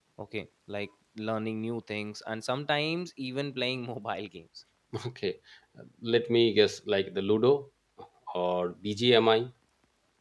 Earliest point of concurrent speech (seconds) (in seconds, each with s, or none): none